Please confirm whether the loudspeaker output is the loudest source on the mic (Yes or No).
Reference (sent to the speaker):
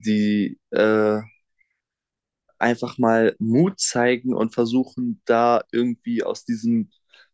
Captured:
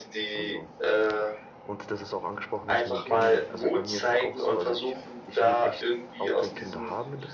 Yes